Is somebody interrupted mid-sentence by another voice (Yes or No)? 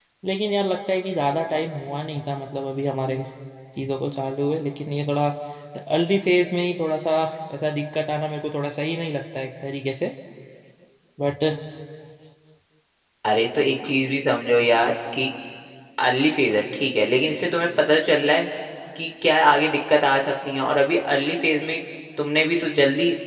No